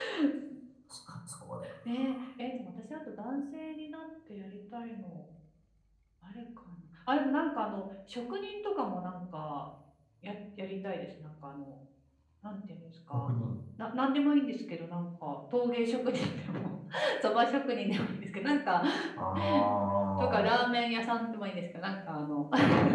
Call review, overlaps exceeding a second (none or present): none